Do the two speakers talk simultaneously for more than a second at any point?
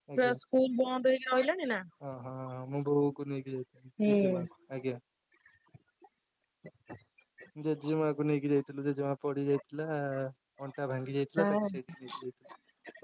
No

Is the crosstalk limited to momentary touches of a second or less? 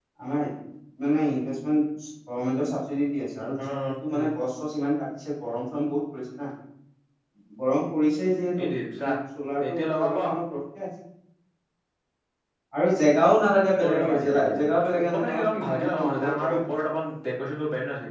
No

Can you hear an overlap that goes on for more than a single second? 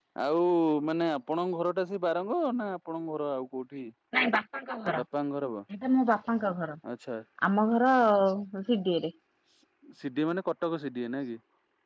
No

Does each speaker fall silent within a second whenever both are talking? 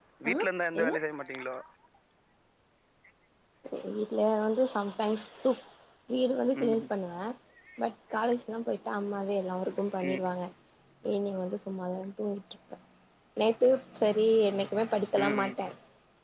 Yes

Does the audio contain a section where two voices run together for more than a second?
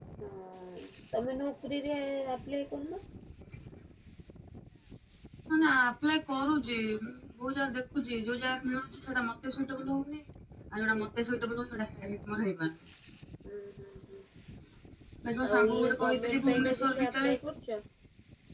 Yes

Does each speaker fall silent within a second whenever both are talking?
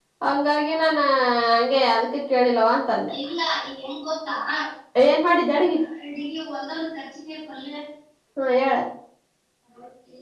Yes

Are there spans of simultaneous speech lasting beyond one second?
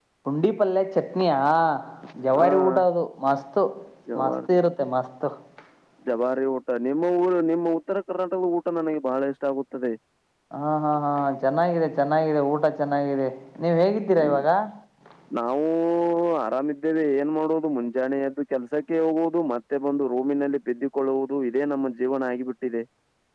No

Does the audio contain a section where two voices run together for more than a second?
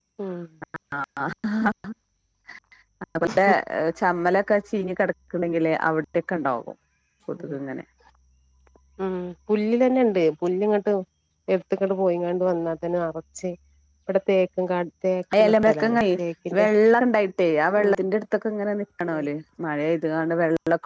No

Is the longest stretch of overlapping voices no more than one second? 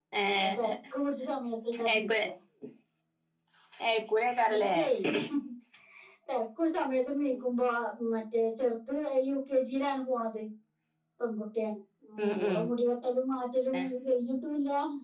Yes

